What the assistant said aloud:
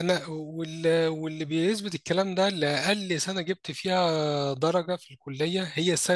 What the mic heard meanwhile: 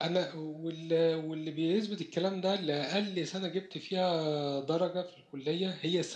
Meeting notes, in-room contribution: none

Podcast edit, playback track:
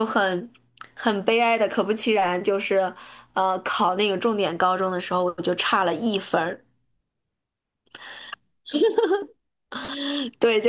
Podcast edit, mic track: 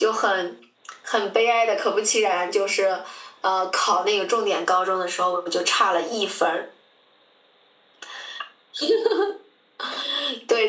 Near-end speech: none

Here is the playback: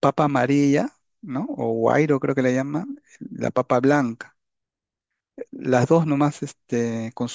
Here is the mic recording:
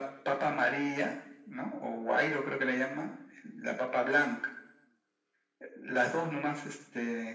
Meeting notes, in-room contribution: none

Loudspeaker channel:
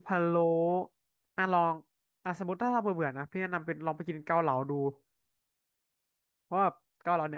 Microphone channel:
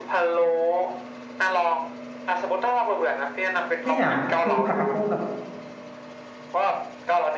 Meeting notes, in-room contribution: present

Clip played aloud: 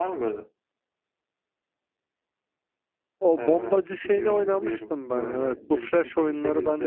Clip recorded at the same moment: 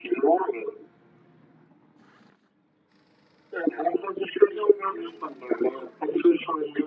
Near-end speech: none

